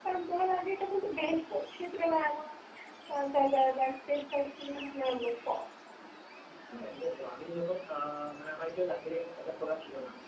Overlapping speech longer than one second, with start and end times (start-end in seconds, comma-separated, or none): none